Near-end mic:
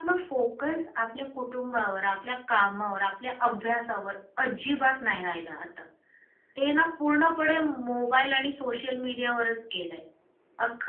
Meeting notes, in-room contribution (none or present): none